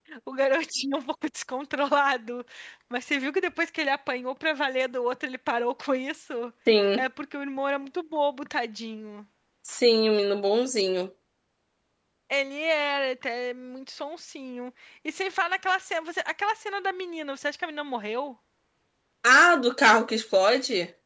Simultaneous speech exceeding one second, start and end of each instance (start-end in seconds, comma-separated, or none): none